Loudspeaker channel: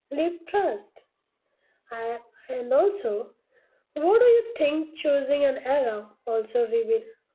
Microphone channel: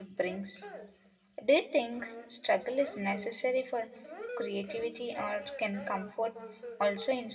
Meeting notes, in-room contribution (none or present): present